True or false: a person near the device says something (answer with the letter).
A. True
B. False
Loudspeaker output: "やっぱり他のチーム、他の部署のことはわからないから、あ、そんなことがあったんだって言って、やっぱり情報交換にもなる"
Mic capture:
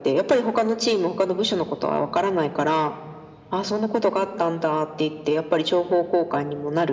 B